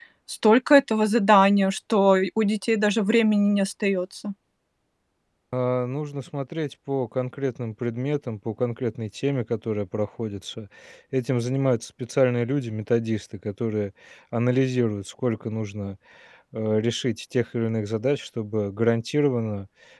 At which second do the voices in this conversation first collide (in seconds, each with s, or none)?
none